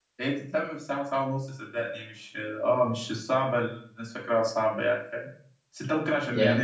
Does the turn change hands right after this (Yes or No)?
No